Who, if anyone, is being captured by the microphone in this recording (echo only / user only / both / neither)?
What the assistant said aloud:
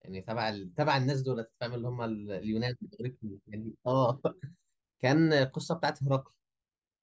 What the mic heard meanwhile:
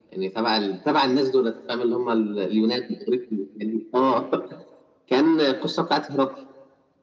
echo only